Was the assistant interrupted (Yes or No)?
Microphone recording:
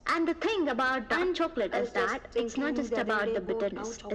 No